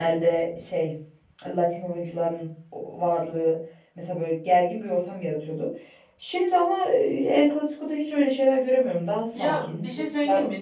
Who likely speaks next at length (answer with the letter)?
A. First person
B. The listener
B